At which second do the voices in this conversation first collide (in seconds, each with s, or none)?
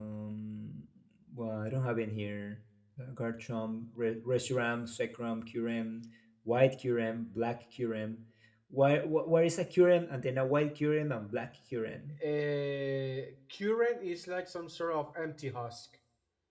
none